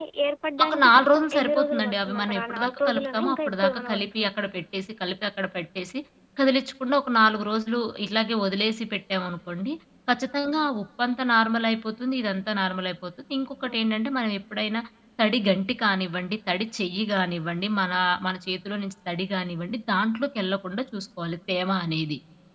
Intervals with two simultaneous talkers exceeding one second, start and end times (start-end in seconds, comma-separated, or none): 0.6-4.3